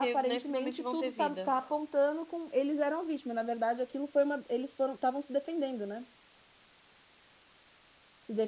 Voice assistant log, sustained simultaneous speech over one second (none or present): present